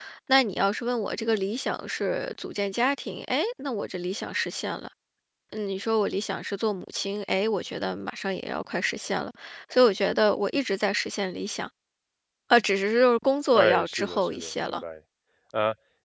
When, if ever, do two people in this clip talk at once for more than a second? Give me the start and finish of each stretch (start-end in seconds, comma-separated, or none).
13.5-14.8